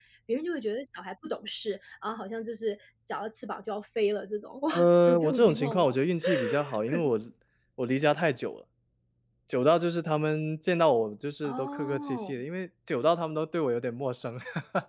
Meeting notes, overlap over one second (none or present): present